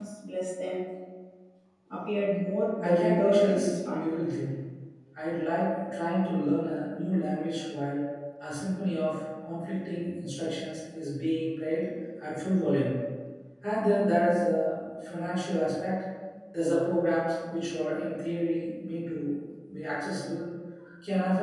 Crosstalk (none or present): present